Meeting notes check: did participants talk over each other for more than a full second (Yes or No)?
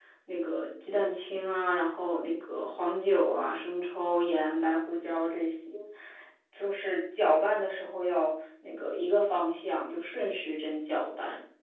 No